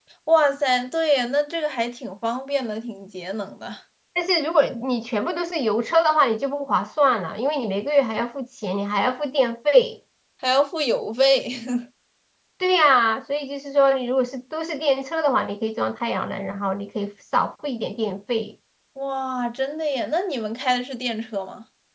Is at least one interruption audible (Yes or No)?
No